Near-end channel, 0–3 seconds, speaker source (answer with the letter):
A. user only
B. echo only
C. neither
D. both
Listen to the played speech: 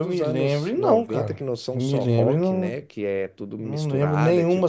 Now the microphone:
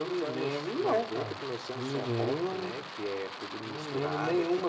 B